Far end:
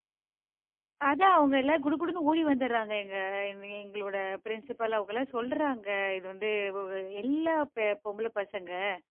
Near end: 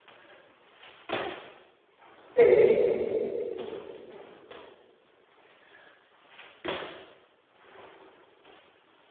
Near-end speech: present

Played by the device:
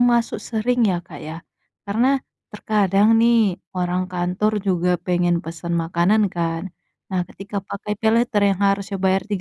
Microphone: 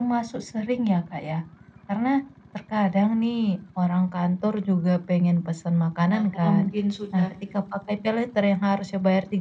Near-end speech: present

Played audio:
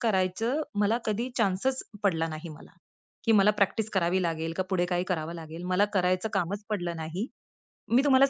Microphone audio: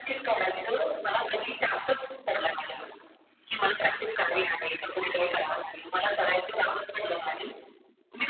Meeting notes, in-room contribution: none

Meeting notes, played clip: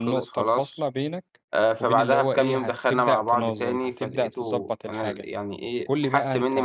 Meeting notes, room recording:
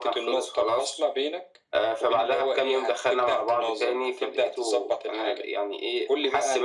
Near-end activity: none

